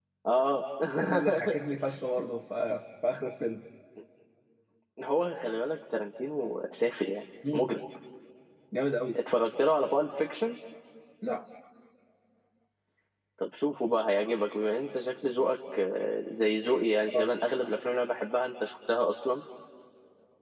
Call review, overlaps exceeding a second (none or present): none